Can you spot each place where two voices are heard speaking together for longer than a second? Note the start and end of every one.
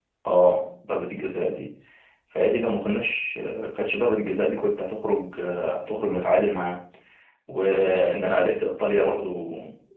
none

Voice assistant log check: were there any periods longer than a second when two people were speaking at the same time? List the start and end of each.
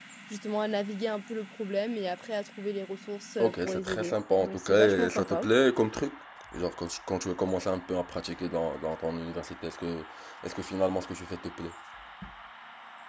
3.4-5.5

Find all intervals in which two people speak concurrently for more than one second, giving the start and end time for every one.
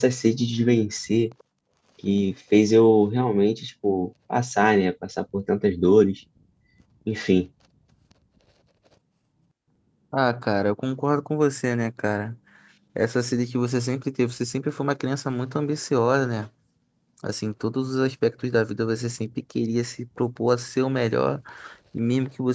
none

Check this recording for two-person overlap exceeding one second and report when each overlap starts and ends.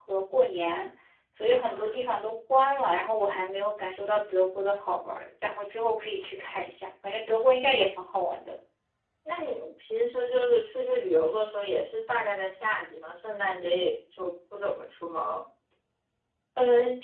none

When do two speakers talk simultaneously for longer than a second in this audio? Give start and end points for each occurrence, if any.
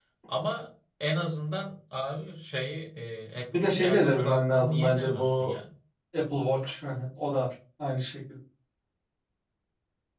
3.5-5.5

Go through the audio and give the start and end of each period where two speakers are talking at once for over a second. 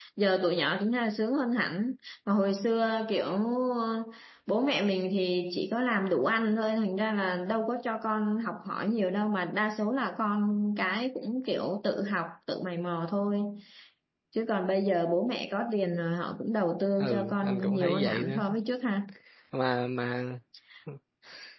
17.0-18.3

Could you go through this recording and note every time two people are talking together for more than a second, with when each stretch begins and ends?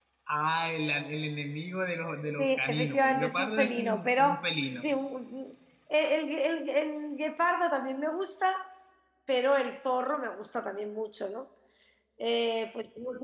2.3-4.4

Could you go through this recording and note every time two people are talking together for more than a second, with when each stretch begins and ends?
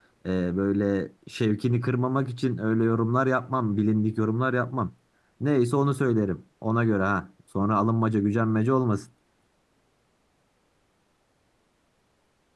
none

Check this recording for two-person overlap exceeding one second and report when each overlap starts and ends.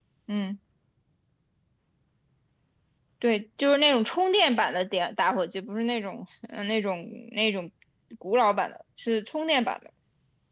none

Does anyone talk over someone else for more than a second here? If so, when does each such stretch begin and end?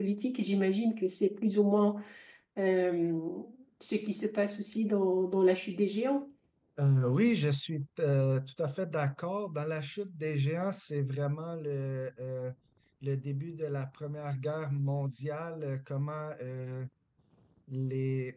none

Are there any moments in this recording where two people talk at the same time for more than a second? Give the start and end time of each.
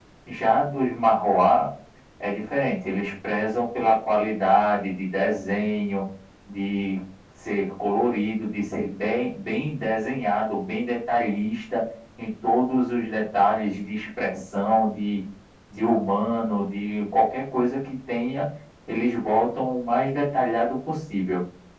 none

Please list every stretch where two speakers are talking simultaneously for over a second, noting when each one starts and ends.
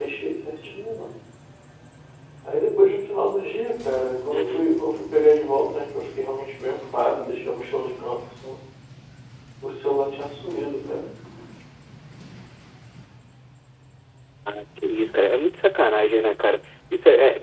none

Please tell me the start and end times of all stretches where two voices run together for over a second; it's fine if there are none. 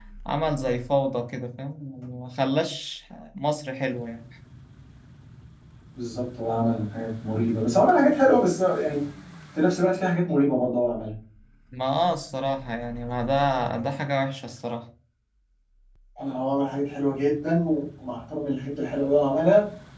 none

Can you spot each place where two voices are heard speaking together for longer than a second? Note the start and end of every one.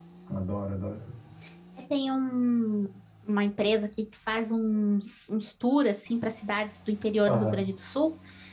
none

